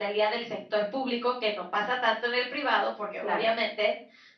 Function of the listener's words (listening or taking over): listening